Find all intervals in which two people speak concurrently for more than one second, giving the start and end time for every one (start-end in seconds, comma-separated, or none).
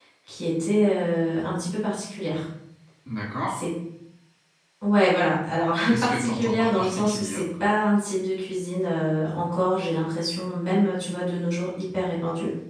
5.8-7.4